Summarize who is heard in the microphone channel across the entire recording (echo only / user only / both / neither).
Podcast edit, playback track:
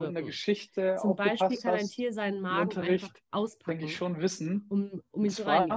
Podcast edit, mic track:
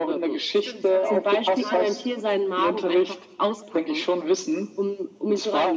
both